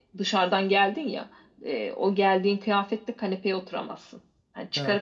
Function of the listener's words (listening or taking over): listening